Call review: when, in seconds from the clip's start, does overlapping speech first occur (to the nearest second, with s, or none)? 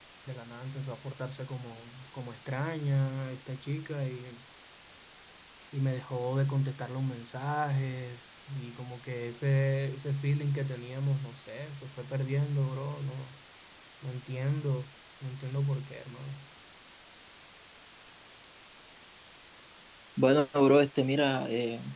none